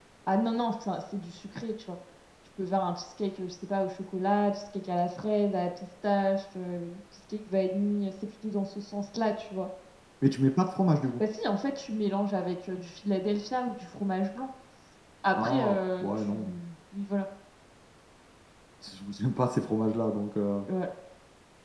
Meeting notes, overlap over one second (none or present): present